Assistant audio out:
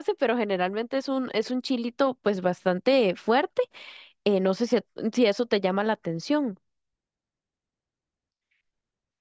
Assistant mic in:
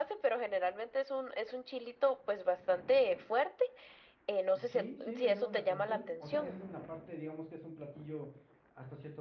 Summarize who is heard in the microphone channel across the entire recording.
both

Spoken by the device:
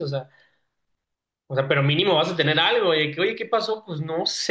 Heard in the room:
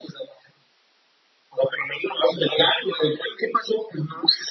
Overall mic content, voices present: echo only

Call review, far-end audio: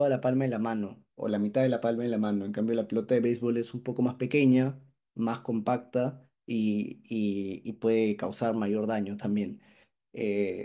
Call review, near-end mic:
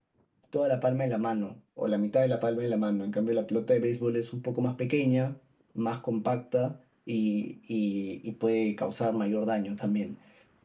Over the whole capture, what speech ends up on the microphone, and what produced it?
echo only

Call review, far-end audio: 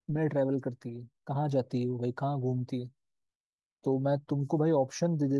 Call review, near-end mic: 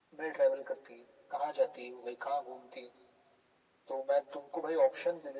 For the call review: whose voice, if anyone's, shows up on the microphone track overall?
echo only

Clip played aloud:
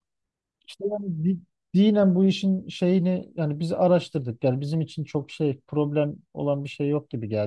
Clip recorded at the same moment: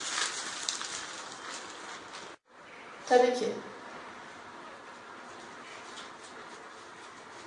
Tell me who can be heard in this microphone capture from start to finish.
user only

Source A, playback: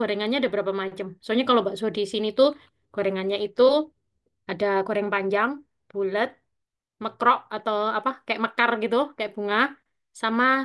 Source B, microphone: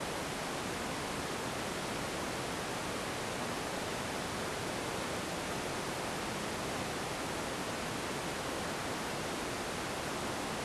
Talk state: neither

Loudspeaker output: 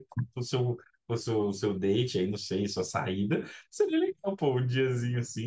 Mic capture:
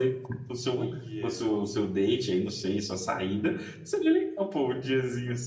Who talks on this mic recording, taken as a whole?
both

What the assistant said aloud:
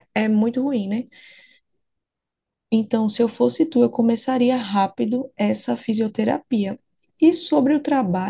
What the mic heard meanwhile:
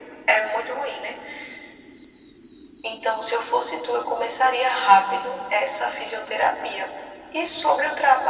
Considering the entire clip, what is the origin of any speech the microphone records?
echo only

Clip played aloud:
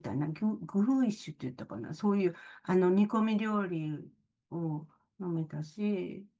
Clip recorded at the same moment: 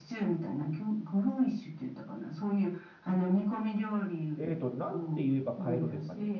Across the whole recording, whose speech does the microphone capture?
both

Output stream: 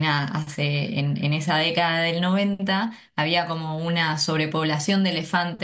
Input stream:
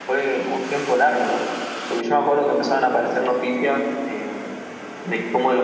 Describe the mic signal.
user only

